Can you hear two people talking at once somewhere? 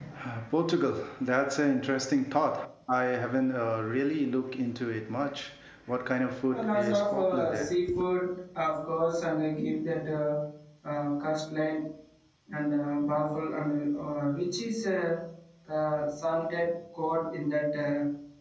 Yes, from 6.5 s

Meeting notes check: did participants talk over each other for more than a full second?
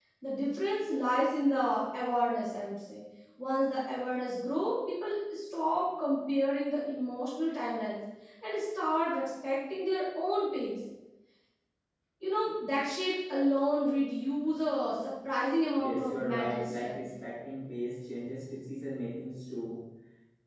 Yes, from 15.8 s

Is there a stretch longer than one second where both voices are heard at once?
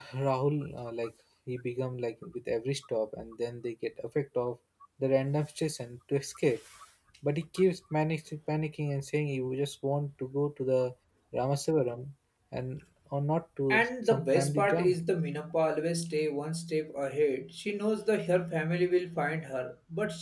Yes, from 13.7 s

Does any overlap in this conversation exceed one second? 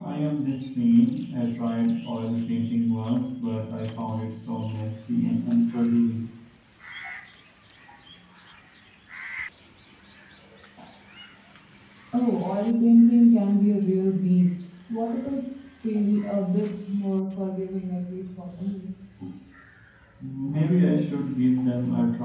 No

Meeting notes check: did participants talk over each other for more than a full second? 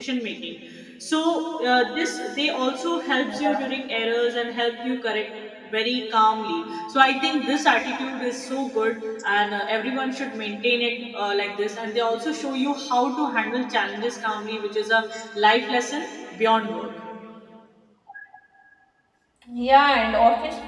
No

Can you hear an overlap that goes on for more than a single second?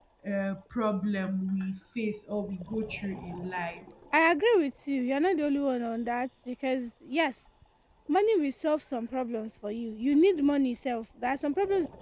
No

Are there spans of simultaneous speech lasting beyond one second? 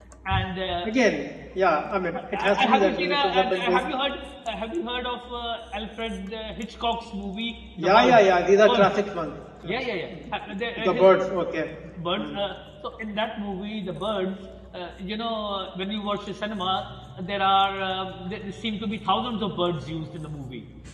Yes, from 2.3 s

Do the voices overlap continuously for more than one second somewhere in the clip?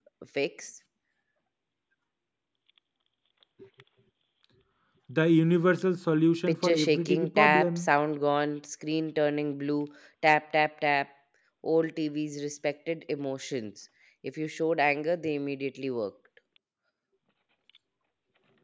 Yes, from 6.5 s

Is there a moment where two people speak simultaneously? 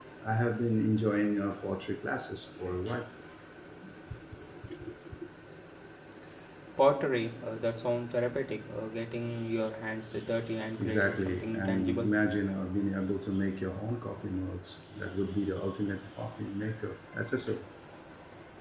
Yes, from 10.8 s

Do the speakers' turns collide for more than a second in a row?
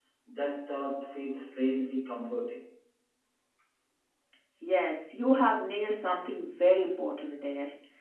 No

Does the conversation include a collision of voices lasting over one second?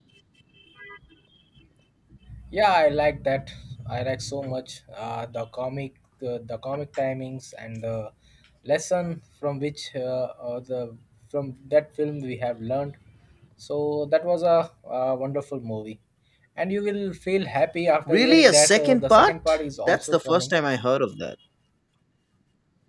Yes, from 18.1 s

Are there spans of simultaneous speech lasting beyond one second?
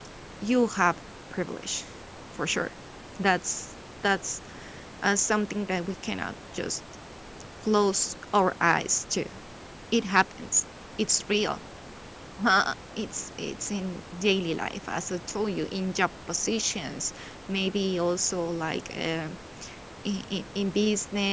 No

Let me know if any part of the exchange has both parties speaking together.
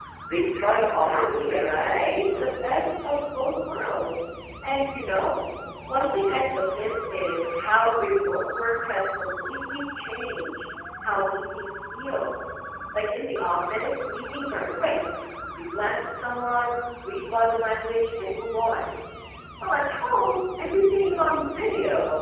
Yes, from 0.7 s

